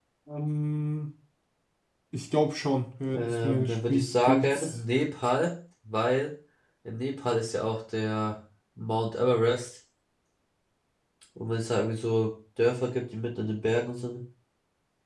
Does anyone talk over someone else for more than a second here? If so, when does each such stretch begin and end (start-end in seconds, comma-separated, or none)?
3.1-4.7